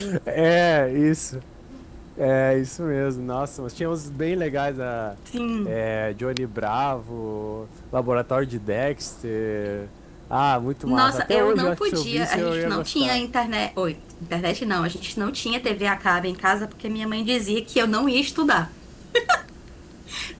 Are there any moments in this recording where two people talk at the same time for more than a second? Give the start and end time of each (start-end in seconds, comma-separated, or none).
10.9-13.2